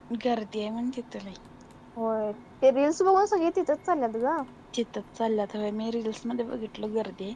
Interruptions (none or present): none